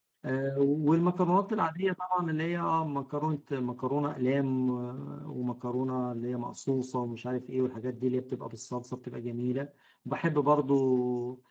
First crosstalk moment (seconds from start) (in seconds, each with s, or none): none